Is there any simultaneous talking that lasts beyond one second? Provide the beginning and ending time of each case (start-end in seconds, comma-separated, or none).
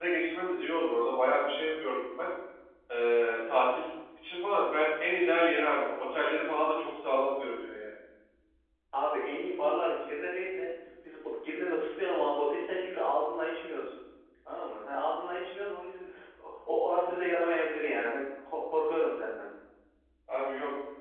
none